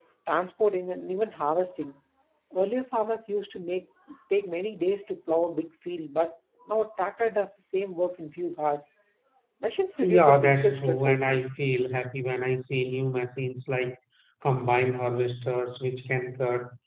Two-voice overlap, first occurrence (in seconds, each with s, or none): 10.0 s